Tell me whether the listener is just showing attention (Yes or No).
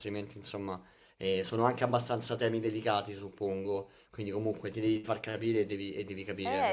No